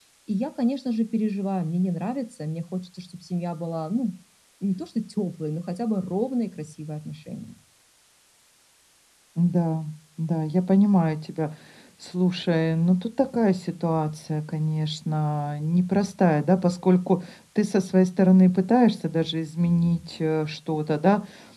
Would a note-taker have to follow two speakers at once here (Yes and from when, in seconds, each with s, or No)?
No